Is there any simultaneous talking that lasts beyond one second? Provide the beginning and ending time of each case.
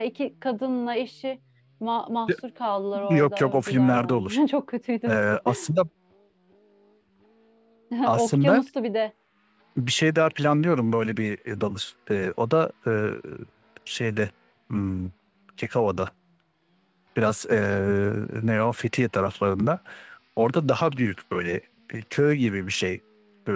3.1-4.4

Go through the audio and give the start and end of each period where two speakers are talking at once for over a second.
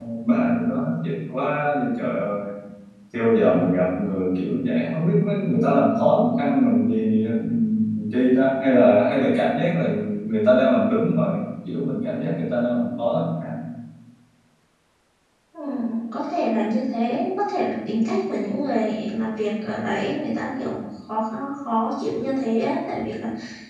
none

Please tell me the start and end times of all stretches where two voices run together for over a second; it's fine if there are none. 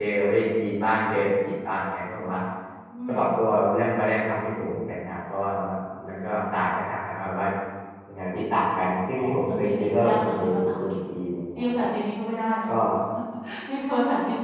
9.2-10.9

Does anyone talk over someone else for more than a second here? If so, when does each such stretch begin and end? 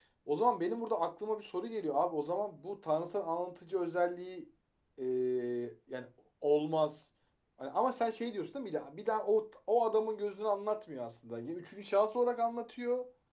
none

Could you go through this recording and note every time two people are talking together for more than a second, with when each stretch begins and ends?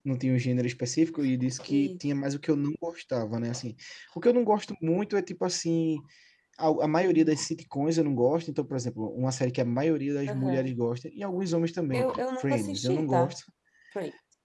11.9-13.4

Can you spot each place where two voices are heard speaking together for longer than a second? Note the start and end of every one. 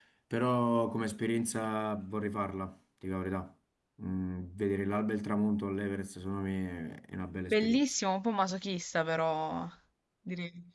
none

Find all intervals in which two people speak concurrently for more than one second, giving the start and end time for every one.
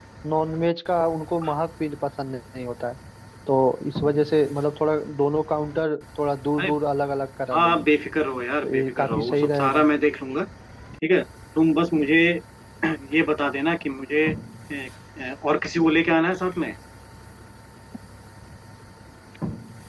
8.6-9.8

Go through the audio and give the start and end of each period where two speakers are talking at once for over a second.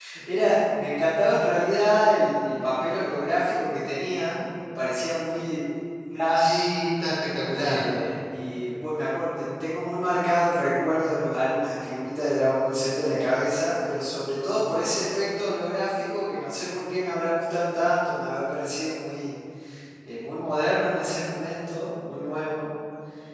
none

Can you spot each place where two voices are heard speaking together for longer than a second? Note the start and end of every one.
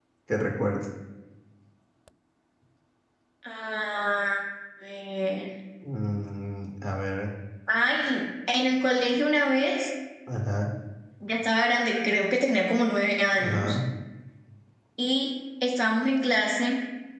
none

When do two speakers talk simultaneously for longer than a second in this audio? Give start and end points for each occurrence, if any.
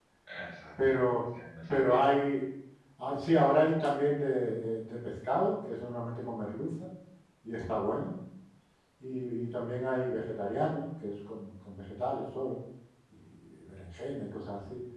none

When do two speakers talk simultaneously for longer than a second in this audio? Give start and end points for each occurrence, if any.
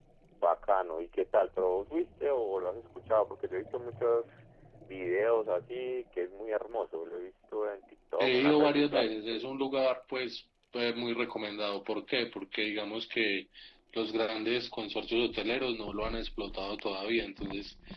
8.2-9.4

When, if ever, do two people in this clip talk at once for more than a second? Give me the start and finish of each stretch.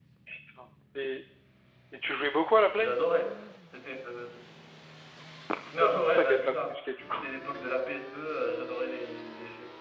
5.8-7.2

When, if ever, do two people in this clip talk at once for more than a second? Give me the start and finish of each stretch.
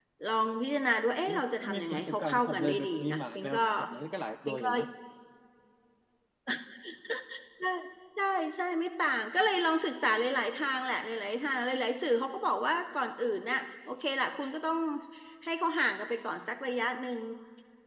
1.3-3.6

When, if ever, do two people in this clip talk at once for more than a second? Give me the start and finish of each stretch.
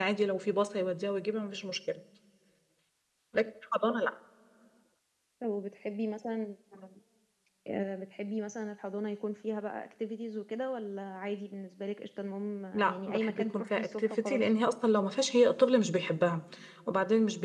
12.7-14.5

